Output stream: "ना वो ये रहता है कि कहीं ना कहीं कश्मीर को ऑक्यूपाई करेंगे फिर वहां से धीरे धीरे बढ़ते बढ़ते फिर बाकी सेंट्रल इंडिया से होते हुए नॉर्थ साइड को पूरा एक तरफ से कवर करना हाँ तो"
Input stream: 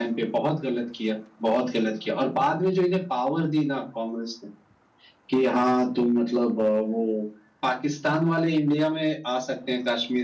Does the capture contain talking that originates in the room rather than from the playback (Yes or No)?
Yes